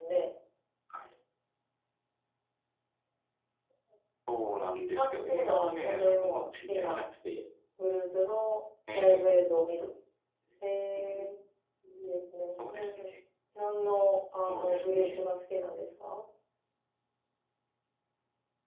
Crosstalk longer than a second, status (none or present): present